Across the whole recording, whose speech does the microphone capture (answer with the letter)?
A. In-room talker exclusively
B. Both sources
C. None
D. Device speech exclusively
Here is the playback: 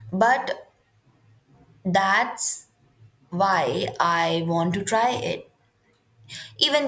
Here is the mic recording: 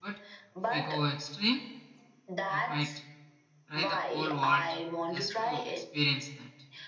B